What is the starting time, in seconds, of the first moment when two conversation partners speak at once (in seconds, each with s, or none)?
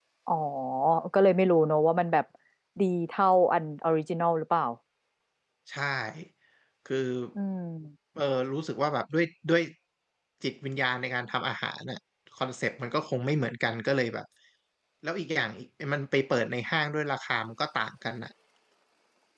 none